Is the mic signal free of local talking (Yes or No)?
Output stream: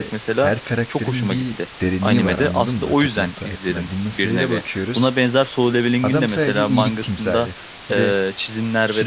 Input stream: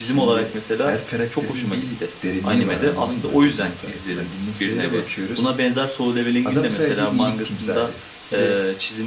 Yes